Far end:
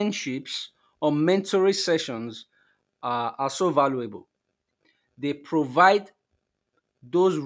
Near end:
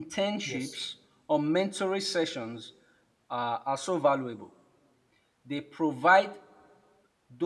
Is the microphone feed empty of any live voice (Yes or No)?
No